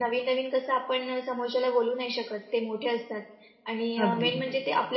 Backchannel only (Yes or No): Yes